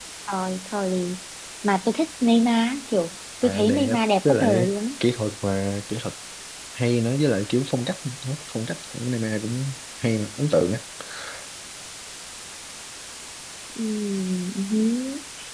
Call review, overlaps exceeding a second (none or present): present